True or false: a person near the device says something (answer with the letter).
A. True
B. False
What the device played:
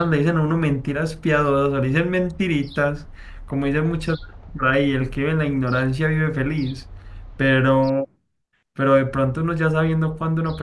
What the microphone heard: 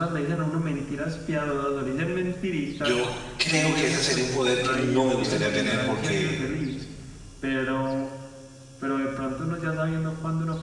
A